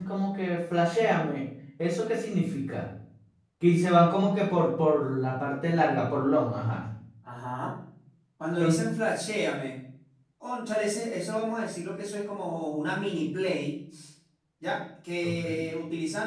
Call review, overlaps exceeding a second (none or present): none